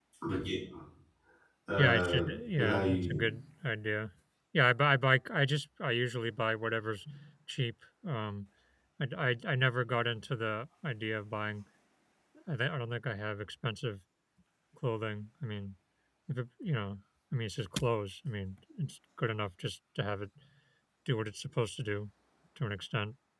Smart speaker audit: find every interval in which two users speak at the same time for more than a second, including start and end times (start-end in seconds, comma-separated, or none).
1.8-3.1